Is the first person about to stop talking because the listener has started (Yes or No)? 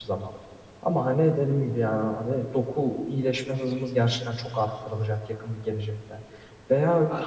No